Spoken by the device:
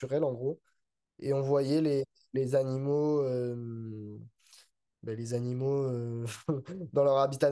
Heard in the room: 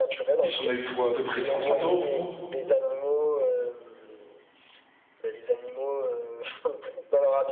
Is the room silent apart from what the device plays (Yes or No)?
No